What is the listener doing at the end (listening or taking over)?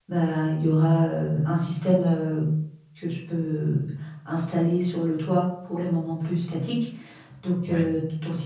listening